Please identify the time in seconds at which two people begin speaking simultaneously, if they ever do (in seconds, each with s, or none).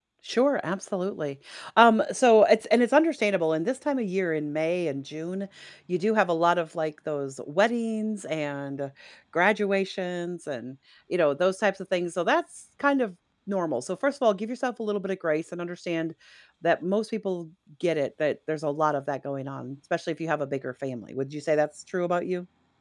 none